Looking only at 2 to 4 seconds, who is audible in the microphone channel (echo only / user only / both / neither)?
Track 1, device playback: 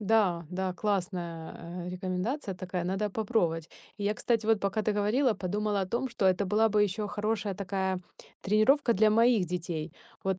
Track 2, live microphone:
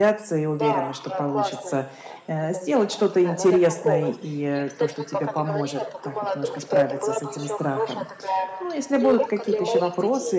both